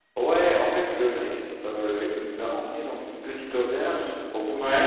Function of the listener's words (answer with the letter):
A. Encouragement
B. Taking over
A